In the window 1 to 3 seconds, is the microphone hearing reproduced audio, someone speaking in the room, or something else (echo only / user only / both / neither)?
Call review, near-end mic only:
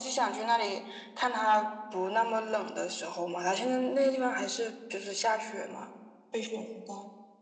echo only